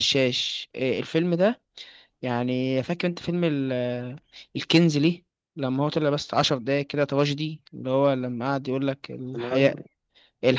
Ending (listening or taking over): listening